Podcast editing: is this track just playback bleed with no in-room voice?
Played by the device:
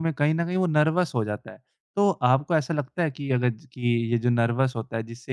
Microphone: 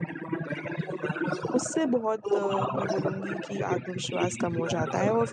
No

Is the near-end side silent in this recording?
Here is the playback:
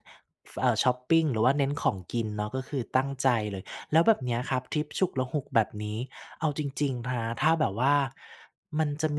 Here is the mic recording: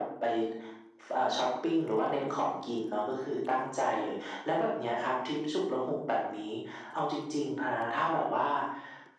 Yes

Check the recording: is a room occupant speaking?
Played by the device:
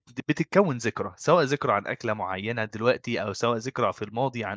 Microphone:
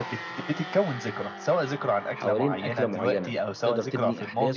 Yes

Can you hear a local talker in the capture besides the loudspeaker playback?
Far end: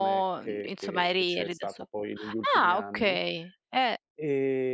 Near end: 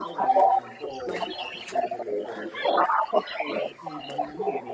Yes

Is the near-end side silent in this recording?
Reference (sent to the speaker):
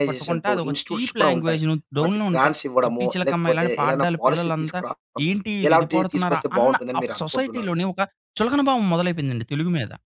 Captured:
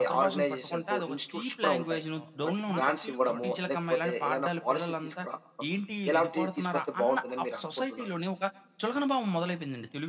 No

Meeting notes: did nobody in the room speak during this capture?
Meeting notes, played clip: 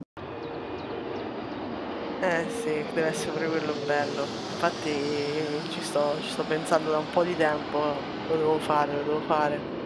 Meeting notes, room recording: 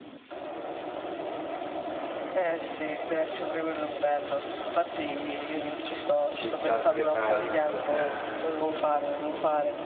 No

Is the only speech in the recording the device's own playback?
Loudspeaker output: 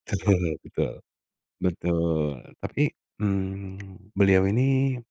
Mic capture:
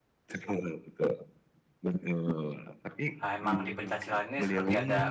No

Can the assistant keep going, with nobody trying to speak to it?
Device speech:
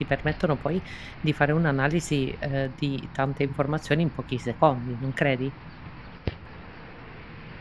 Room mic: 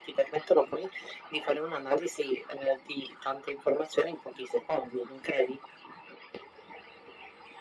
Yes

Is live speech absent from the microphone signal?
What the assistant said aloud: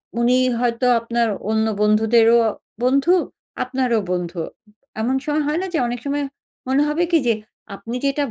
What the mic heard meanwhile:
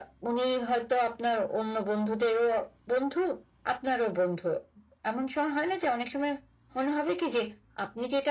Yes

